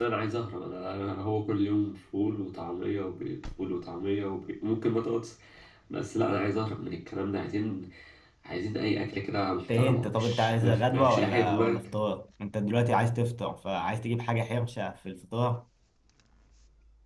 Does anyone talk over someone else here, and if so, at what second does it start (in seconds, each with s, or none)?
9.7 s